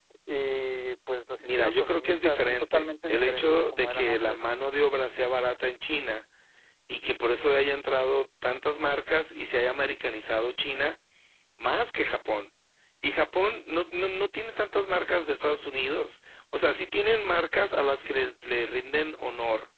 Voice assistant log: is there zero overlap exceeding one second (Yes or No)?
No